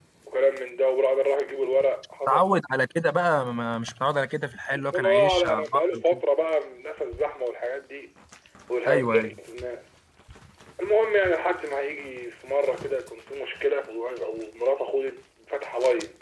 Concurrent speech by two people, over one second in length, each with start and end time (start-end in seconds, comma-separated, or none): 4.7-6.2